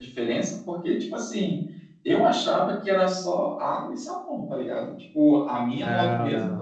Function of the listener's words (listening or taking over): listening